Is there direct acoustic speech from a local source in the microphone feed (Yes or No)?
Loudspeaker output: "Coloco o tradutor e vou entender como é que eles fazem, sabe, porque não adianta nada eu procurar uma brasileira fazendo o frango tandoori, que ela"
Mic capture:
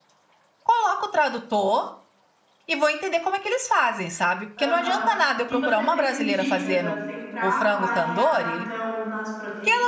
Yes